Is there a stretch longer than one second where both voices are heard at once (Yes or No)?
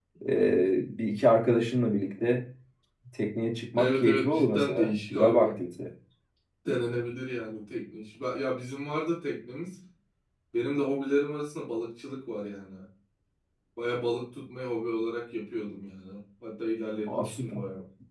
Yes